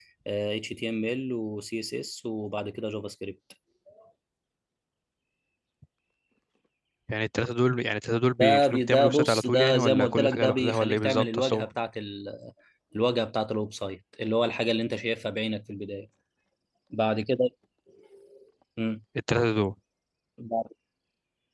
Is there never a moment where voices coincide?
No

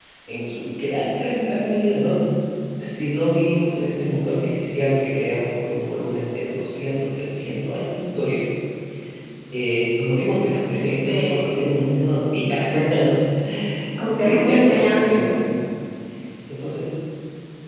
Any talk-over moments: Yes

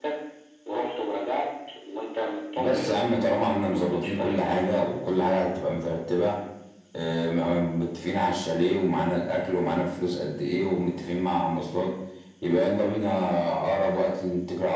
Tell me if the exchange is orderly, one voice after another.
No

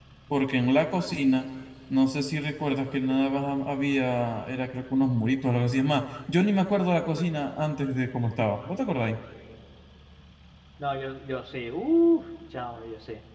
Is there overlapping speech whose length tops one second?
No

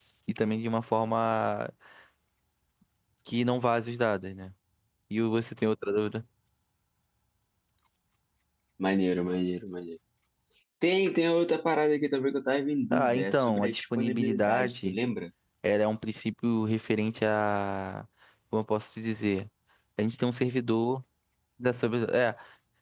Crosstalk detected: Yes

